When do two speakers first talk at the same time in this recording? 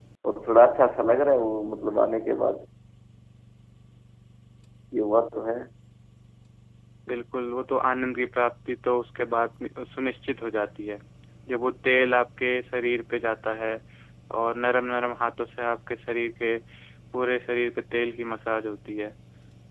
none

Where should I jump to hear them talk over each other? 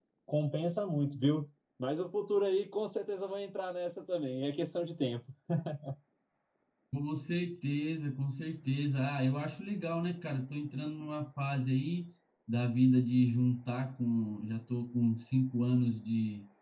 none

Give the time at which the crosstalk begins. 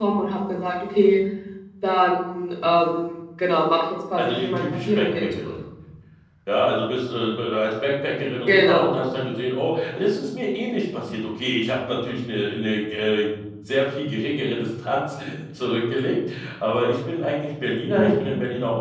4.2 s

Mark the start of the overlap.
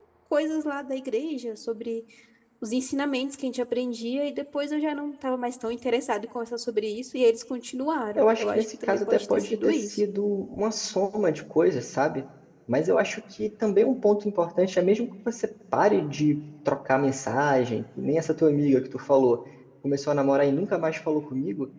8.2 s

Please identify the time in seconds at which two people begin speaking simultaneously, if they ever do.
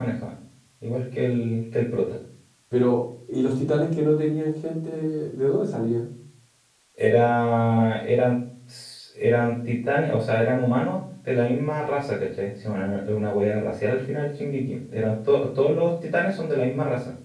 none

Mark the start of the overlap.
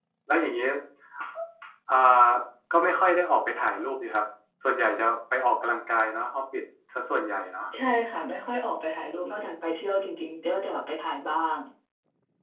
none

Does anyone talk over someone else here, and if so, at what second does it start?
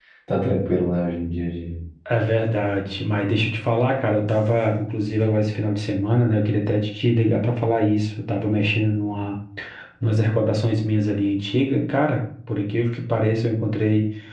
none

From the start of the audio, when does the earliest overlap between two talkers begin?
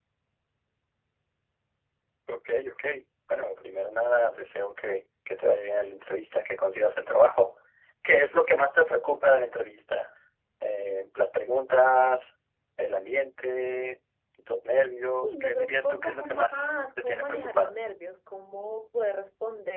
15.2 s

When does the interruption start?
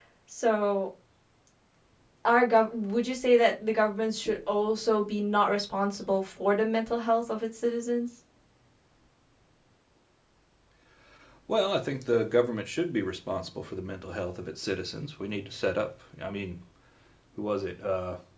none

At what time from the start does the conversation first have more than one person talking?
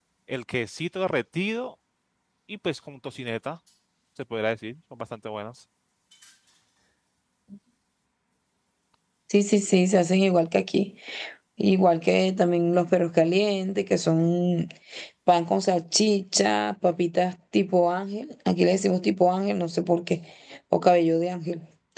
none

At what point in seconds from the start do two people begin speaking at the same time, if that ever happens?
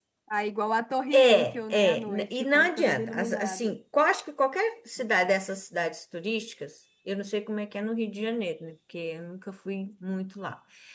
1.1 s

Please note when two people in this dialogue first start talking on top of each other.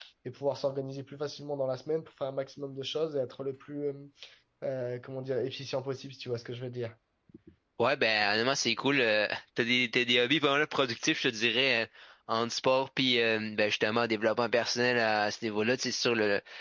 none

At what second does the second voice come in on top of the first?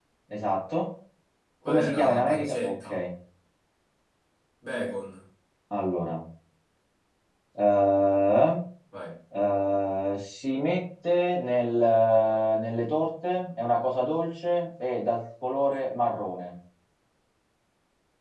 1.7 s

